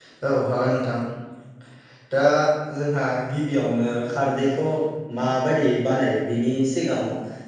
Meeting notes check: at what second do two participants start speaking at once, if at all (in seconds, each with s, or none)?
none